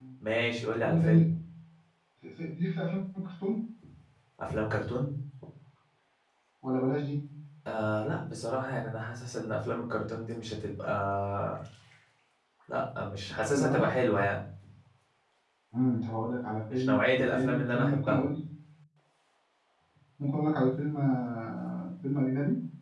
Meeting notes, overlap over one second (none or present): present